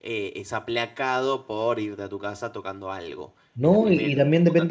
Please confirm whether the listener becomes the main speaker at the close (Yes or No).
Yes